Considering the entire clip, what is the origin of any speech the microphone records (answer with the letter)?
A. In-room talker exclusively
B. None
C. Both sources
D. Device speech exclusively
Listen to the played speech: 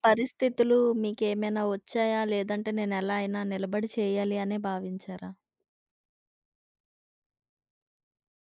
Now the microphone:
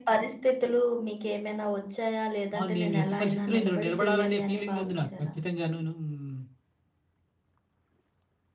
C